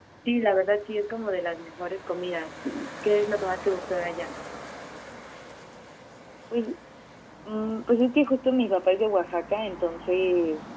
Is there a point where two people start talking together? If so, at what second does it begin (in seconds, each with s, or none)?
none